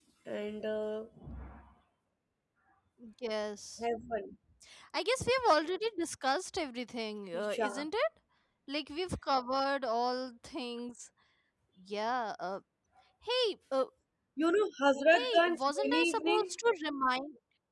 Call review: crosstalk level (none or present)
present